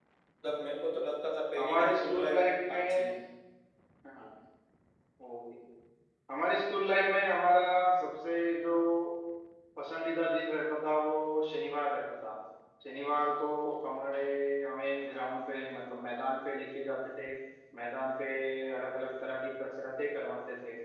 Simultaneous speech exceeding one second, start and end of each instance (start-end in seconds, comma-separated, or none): 1.6-3.1